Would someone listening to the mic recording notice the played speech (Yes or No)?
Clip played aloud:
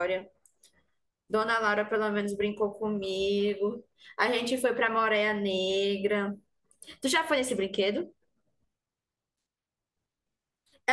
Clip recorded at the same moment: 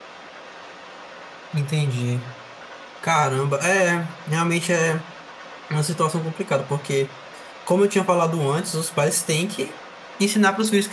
No